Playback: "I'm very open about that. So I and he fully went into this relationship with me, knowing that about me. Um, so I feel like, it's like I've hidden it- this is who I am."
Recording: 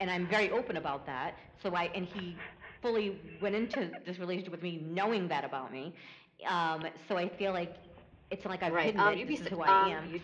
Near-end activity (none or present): present